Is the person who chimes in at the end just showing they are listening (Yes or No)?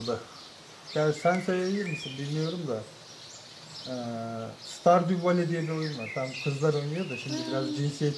Yes